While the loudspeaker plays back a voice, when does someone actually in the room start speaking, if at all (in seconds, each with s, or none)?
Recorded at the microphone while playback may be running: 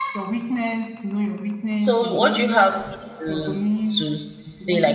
1.8 s